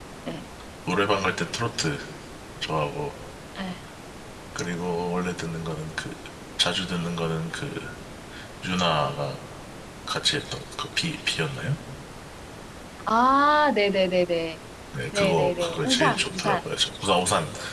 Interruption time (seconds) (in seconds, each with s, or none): 15.1 s